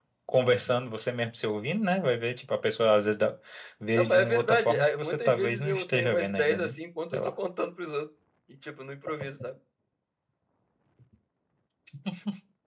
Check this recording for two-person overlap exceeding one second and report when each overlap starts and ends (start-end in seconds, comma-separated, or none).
4.0-6.7